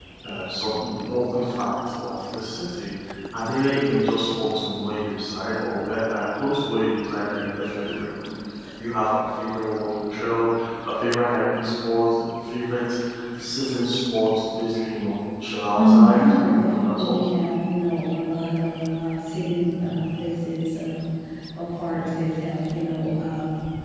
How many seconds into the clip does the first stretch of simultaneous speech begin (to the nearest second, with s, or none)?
16 s